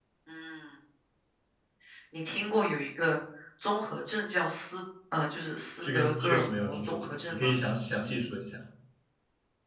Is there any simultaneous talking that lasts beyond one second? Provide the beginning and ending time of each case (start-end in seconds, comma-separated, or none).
5.8-7.5